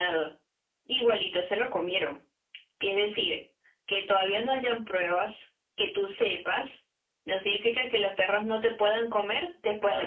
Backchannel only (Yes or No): No